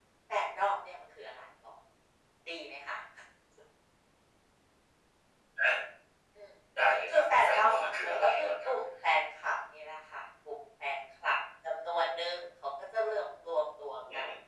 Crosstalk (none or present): present